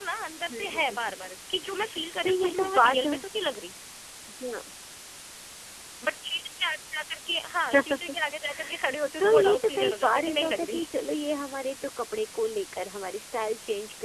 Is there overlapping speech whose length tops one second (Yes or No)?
Yes